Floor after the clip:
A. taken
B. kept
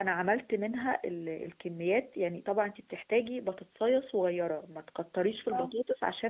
B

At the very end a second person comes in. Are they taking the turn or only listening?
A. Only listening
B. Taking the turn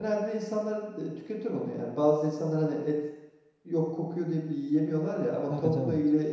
A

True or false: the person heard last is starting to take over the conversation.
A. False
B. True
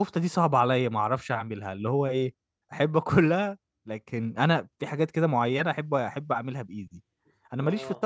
A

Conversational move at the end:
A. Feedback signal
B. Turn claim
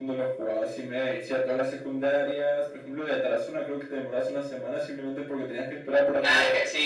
B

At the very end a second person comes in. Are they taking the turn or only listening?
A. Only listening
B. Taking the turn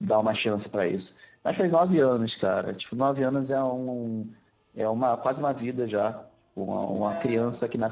A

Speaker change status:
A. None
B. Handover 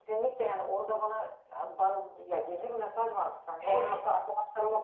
A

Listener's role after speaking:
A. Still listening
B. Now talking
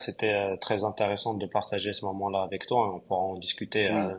B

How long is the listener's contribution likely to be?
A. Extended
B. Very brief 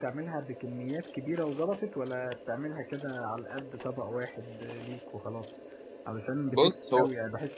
B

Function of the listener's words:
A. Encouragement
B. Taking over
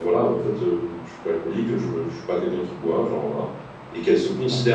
A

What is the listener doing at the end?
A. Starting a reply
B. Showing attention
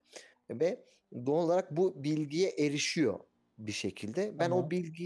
B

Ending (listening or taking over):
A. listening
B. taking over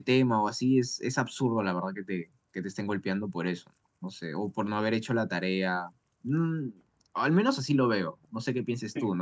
A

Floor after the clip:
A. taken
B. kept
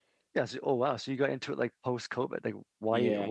A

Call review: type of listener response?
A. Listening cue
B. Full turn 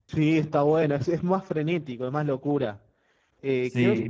A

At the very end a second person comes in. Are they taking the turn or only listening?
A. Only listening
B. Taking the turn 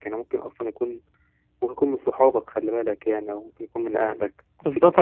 B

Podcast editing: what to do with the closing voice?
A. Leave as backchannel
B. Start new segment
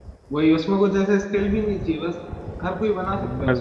B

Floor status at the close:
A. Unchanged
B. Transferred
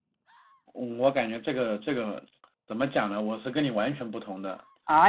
B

